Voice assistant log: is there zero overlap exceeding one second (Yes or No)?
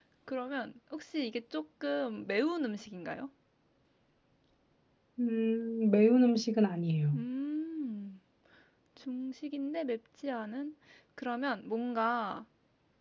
Yes